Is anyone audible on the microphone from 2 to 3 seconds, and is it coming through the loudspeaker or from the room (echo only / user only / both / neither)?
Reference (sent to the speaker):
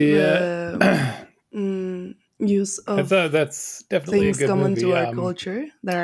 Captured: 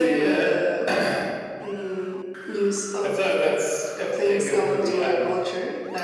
echo only